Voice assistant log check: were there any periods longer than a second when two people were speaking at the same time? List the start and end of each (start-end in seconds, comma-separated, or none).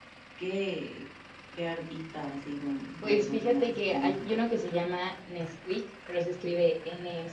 3.0-4.4